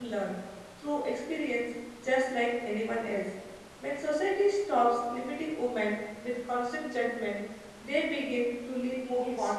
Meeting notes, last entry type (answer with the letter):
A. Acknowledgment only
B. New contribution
B